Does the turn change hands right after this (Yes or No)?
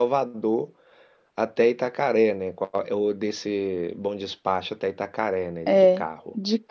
Yes